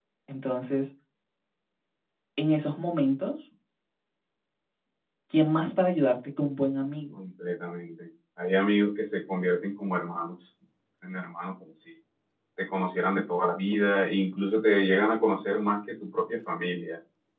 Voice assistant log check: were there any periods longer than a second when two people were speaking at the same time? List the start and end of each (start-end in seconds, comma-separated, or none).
none